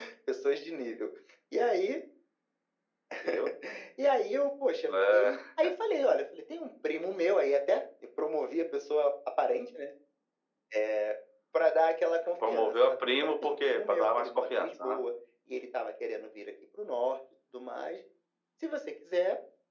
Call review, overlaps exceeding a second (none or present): present